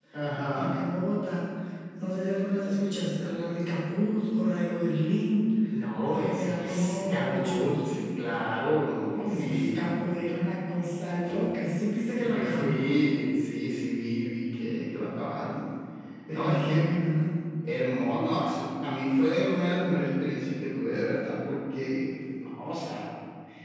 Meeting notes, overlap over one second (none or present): present